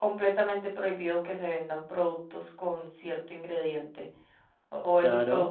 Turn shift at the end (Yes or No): No